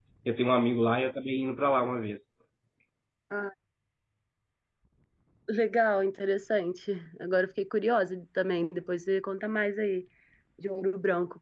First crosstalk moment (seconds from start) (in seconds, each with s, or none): none